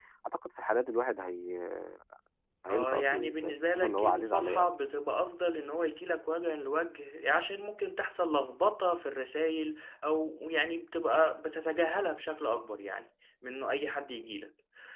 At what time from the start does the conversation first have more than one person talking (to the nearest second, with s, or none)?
3 s